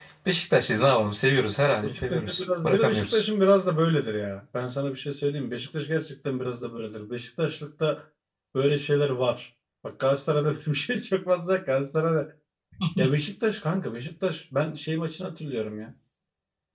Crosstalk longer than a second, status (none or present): present